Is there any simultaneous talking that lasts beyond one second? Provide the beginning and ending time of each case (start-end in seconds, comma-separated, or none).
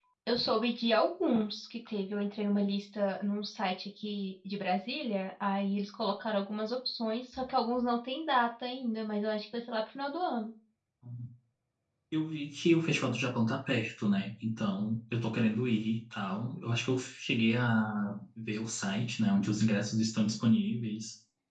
none